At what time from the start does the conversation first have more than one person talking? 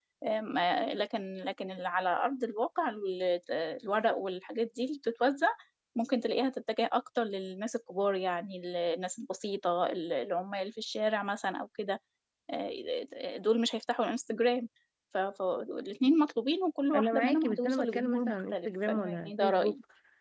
16.9 s

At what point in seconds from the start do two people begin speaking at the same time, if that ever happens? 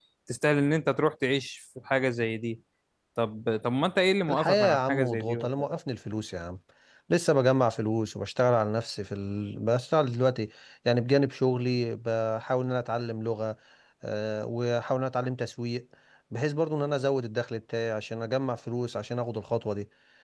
4.3 s

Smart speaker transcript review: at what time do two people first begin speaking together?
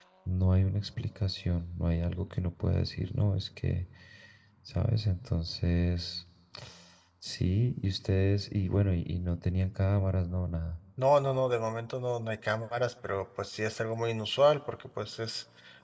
none

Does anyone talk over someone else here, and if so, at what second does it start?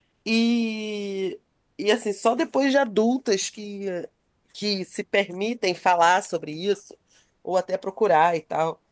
none

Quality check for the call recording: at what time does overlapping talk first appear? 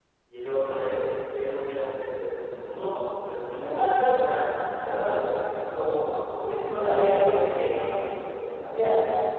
3.6 s

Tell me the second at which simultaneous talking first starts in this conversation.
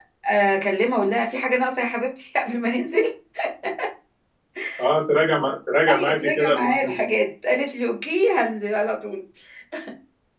5.9 s

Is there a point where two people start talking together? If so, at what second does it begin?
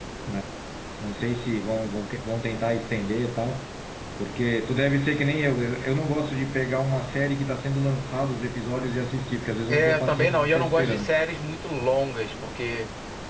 9.7 s

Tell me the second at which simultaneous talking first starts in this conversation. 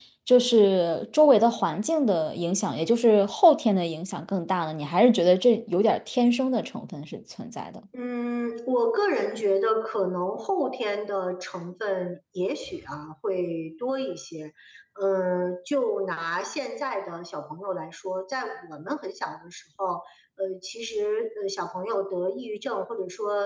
none

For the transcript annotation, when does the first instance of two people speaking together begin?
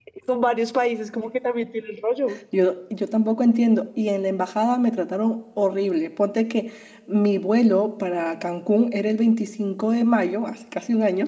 none

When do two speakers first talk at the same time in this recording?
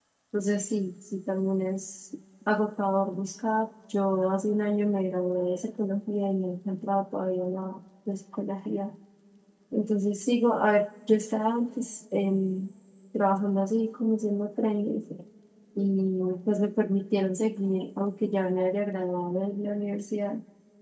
none

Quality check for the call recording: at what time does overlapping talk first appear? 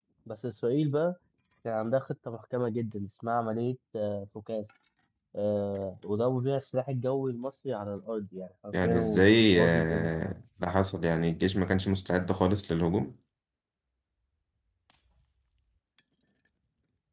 8.7 s

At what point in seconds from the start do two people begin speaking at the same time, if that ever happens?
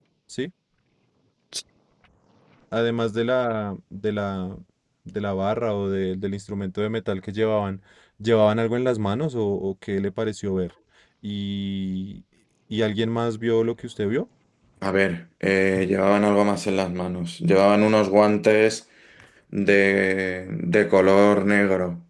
none

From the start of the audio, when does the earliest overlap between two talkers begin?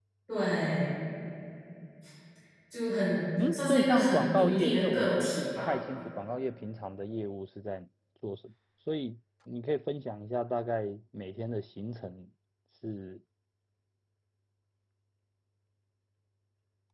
3.5 s

